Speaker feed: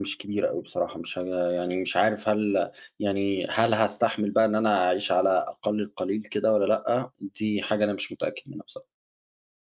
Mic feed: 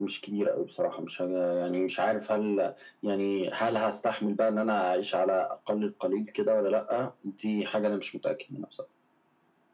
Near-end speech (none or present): none